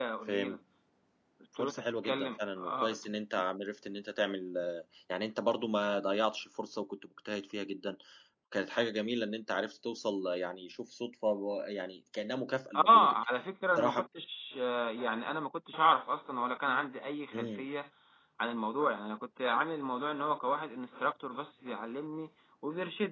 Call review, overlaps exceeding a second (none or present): present